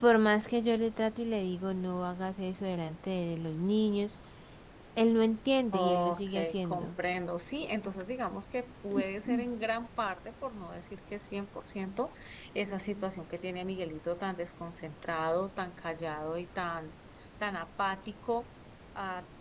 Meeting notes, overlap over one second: present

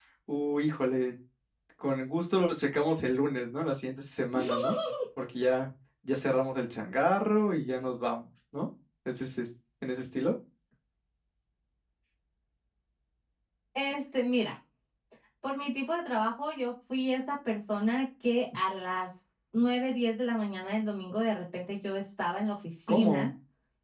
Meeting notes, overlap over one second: none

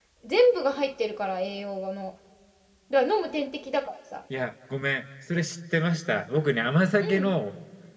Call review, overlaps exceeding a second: none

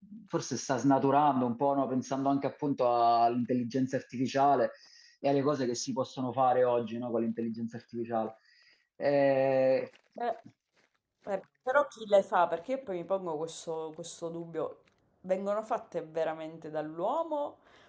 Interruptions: none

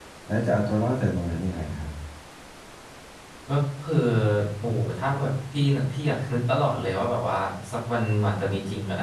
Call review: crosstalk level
none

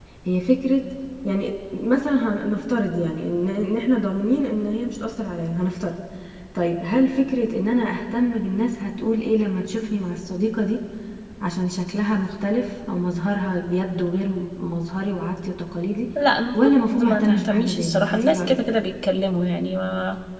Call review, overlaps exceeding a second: present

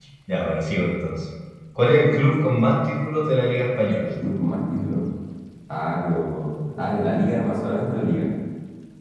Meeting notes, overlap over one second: none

